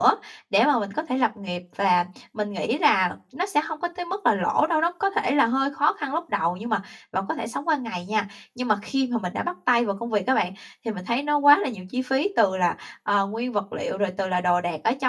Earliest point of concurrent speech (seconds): none

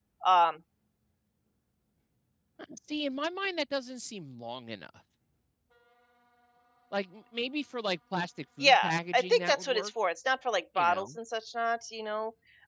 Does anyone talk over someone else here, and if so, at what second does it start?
9 s

